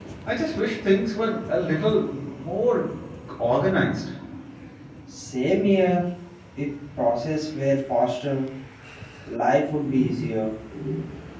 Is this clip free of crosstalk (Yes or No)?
Yes